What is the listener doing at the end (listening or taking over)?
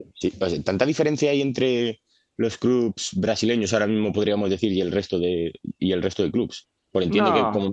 listening